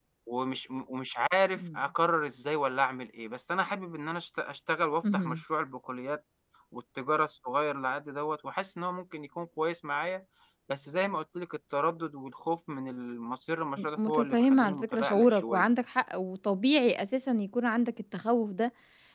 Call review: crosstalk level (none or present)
present